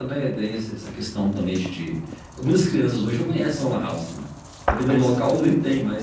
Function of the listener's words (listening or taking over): listening